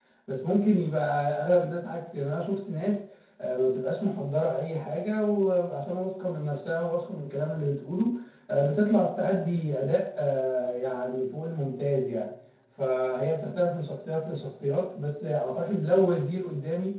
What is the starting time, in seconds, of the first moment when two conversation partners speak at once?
none

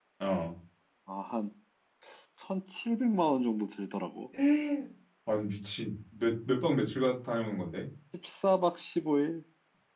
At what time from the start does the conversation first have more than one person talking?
none

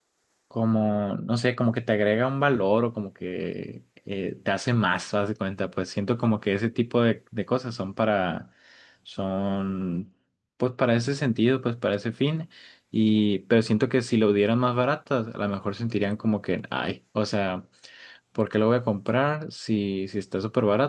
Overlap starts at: none

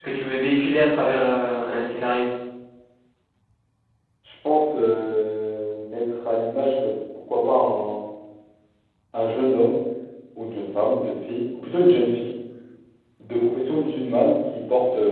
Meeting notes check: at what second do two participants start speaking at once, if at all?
none

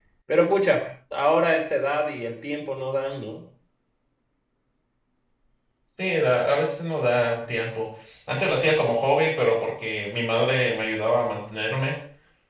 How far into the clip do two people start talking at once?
none

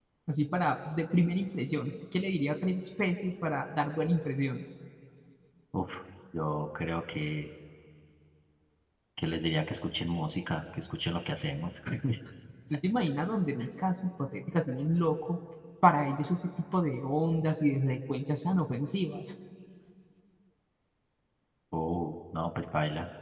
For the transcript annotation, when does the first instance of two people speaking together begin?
none

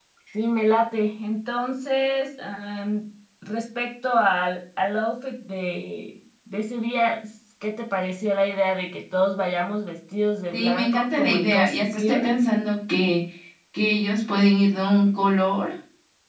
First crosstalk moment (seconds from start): 10.5 s

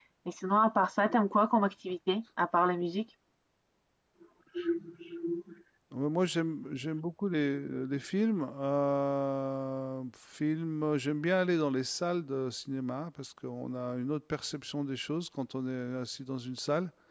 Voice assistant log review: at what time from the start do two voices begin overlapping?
none

